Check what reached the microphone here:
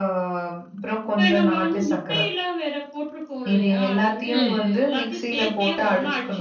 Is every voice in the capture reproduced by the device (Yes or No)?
No